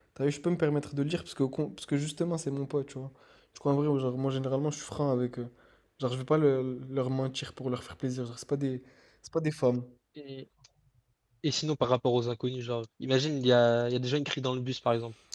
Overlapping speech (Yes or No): No